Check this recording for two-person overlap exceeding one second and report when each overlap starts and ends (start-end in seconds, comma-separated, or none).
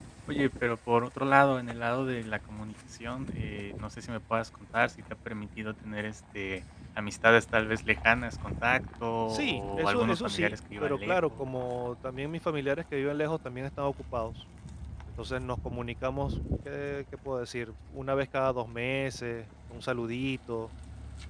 9.3-11.2